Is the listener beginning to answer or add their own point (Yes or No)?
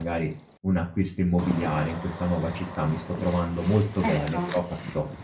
No